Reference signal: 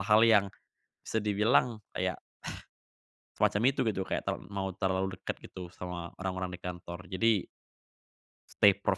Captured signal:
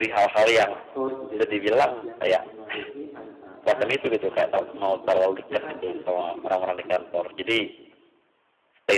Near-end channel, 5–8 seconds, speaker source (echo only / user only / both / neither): both